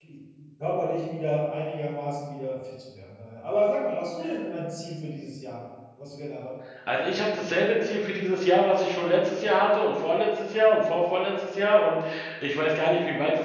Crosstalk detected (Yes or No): No